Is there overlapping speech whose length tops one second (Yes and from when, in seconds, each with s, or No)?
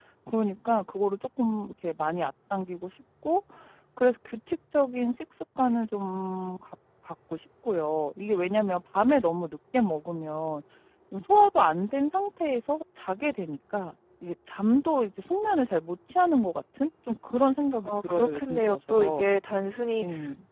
Yes, from 17.8 s